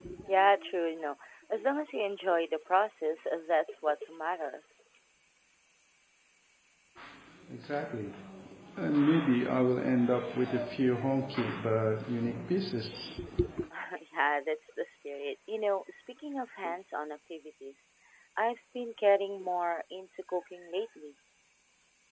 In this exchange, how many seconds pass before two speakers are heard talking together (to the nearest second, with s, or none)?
none